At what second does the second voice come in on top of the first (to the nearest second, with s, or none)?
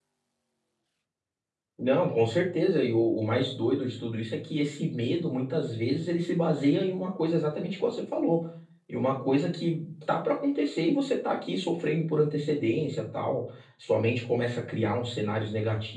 none